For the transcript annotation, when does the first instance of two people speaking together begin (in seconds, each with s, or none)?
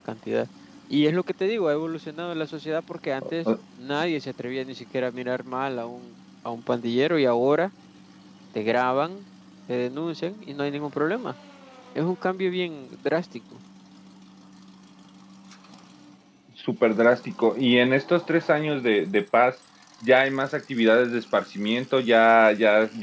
none